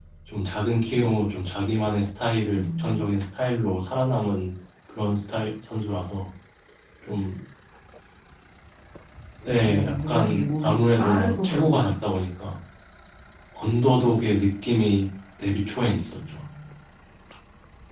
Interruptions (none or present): present